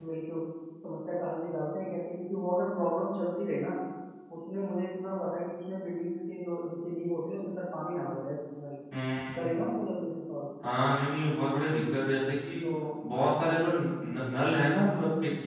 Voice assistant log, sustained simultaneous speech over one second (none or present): none